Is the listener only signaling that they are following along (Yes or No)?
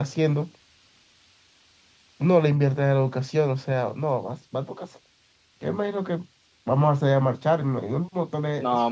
No